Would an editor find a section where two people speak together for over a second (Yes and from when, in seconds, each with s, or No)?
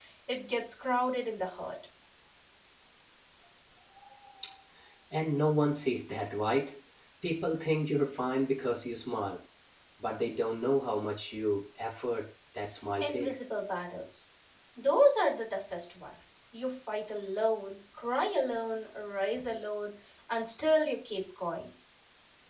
No